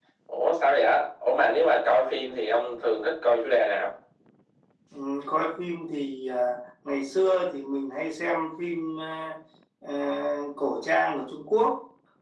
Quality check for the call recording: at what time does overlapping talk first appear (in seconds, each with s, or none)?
none